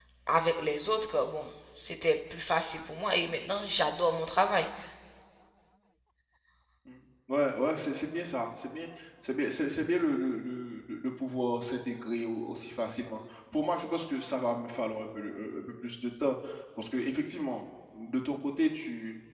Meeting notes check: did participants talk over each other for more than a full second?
No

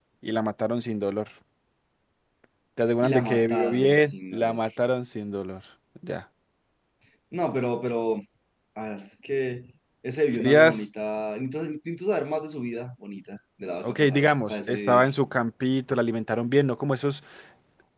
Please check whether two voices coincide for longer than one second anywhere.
Yes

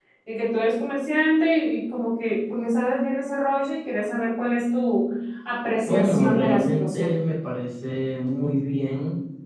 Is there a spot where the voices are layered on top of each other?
Yes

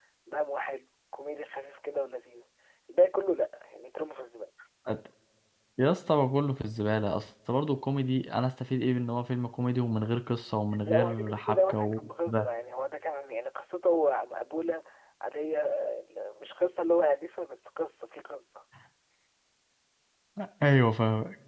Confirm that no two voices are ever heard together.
No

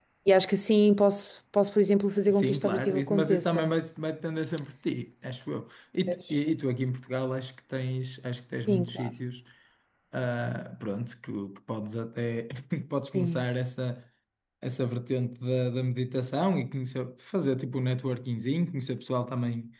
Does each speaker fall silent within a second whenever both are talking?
No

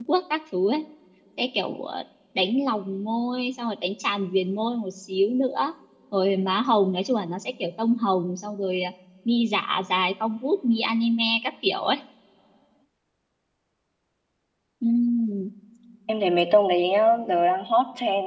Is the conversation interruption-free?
Yes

